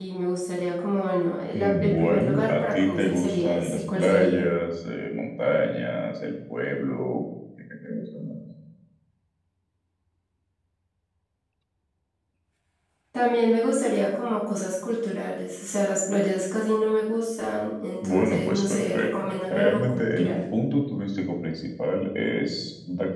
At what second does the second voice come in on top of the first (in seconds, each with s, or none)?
1.5 s